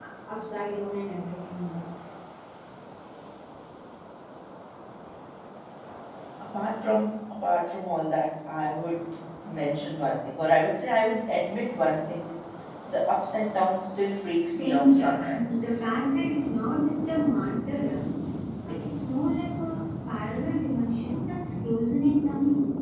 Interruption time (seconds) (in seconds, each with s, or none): 14.4 s